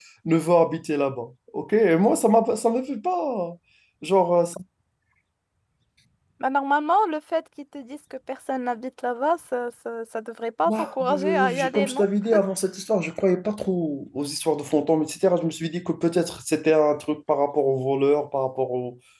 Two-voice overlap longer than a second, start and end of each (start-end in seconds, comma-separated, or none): 10.7-12.1